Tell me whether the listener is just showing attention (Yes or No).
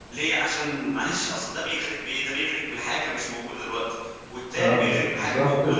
No